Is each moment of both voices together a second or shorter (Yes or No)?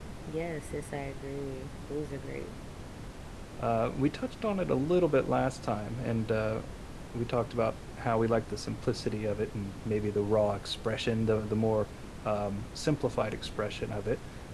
Yes